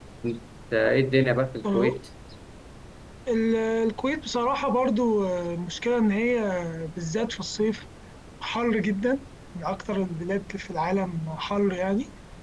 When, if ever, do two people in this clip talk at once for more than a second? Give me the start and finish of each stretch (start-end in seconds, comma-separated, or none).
none